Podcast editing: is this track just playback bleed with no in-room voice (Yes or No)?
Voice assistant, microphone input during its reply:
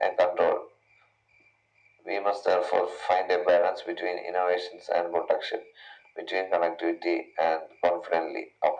Yes